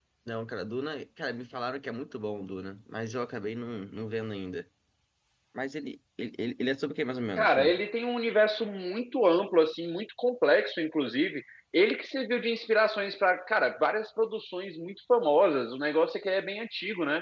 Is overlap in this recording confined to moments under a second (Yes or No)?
Yes